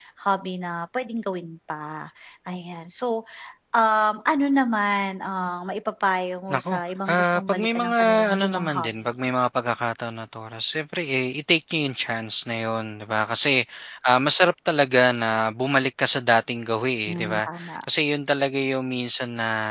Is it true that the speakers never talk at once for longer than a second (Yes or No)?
No